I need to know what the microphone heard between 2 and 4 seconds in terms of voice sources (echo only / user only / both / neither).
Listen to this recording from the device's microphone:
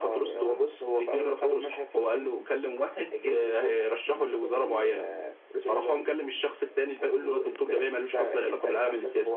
echo only